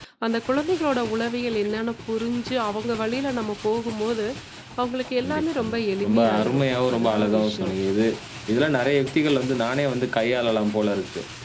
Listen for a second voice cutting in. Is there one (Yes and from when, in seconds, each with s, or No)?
Yes, from 5.2 s